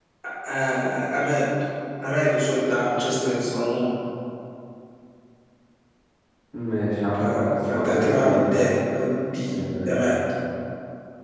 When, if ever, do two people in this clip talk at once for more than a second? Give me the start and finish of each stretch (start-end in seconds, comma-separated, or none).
7.2-8.5